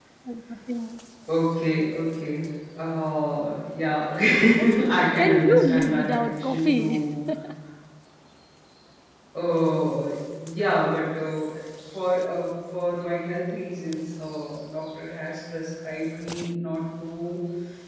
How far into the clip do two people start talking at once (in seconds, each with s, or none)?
5.2 s